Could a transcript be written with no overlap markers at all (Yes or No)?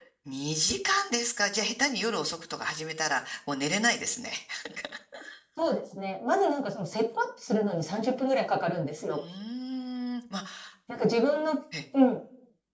Yes